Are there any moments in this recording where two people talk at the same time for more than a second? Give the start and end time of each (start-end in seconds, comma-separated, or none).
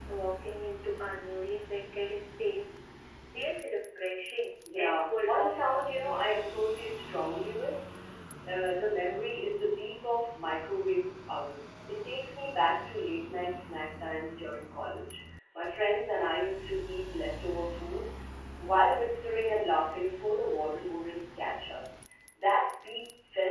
4.8-6.6